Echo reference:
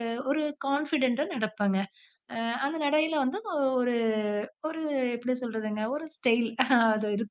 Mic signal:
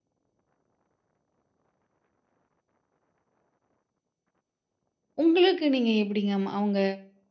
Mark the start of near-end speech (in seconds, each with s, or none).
5.2 s